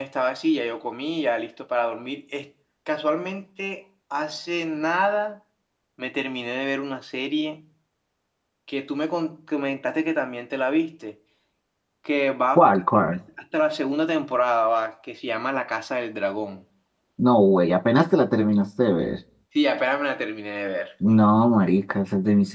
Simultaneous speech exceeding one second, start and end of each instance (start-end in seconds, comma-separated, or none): none